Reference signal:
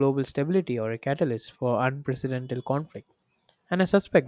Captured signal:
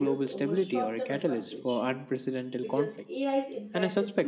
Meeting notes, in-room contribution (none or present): present